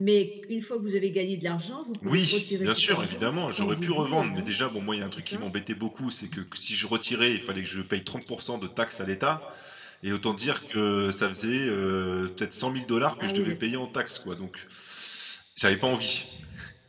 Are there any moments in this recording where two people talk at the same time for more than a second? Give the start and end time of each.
2.0-4.5

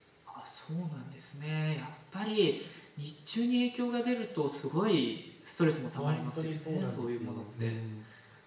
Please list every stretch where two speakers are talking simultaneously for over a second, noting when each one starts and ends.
6.0-7.8

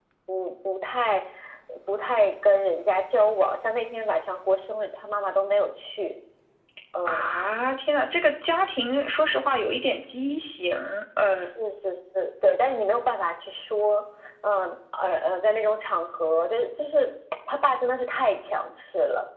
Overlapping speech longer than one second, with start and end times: none

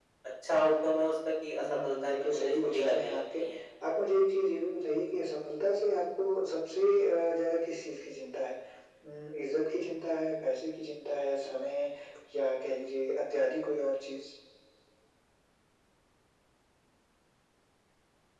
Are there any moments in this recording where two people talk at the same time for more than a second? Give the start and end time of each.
1.6-3.4

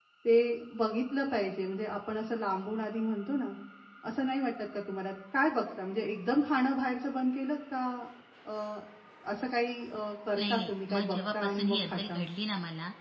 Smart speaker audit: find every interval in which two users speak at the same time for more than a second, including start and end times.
10.4-12.2

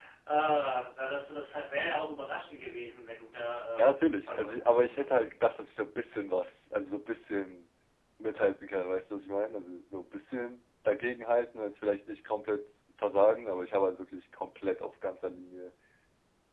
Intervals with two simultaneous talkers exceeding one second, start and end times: 3.8-5.1

